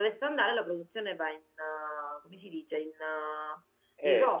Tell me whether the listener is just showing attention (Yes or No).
No